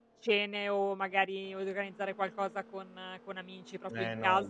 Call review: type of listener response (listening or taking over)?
taking over